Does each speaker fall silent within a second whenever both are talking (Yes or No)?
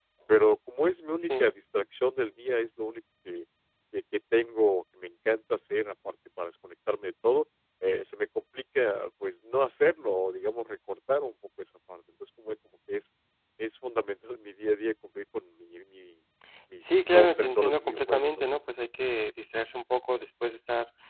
No